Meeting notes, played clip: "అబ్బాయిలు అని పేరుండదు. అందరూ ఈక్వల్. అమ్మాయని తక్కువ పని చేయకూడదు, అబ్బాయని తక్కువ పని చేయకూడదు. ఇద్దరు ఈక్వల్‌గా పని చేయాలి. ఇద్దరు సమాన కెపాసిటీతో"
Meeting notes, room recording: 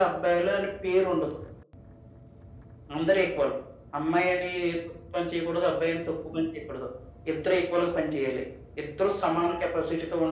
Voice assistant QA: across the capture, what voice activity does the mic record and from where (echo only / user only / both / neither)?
echo only